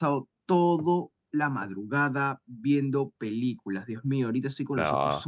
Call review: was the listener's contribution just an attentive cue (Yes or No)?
Yes